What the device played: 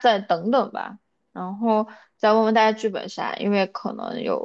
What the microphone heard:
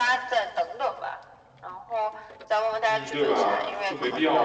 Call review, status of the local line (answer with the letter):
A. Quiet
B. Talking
B